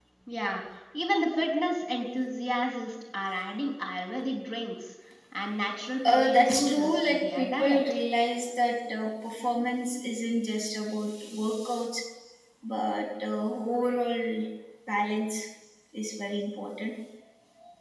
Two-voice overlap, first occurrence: 6.0 s

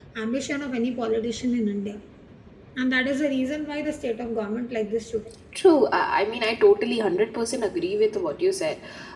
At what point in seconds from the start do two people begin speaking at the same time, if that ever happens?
none

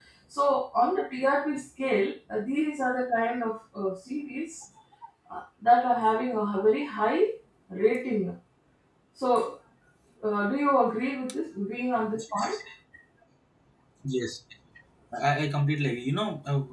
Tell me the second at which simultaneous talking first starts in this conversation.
none

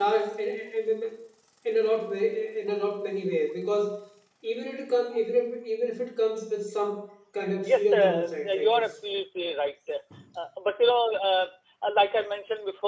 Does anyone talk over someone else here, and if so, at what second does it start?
7.6 s

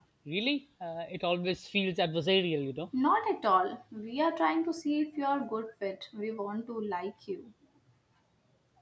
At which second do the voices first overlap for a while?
none

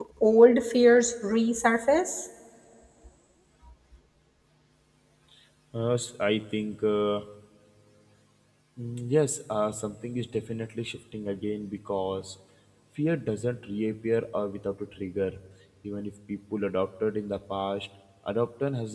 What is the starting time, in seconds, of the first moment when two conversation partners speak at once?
none

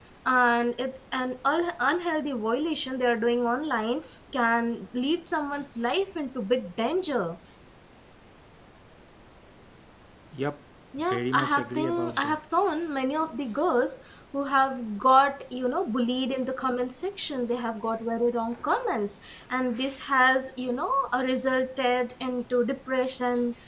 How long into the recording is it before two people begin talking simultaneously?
11.0 s

